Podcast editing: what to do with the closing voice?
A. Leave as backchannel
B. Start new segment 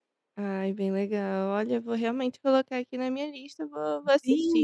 B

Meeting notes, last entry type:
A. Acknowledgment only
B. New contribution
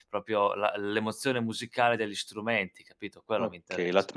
B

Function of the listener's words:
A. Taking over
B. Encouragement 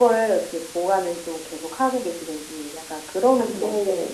A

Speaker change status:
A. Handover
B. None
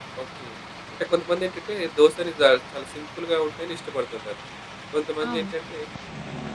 B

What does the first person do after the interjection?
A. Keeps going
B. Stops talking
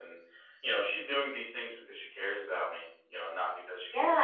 B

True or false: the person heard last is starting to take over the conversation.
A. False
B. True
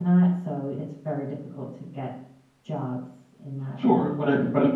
B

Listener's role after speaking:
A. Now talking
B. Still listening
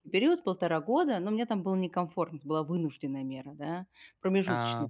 B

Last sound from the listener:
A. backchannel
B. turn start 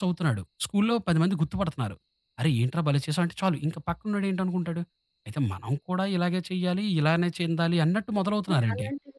B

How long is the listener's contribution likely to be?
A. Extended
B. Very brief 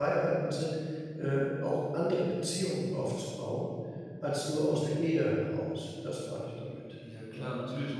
A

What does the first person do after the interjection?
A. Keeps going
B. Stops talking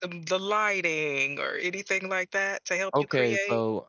B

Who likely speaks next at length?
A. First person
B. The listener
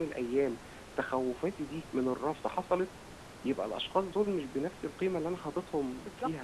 B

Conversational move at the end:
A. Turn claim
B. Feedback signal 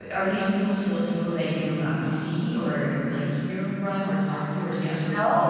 A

